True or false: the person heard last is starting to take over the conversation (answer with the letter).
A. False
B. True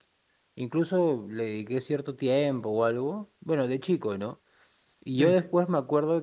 A